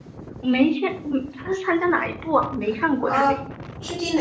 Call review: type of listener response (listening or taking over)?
taking over